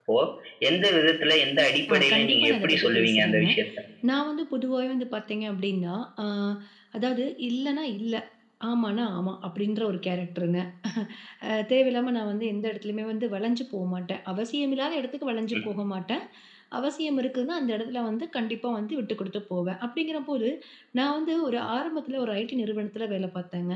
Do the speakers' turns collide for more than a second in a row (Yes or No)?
Yes